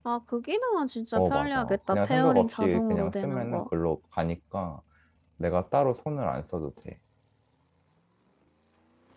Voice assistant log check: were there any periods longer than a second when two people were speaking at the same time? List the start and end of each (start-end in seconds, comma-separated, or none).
1.1-3.7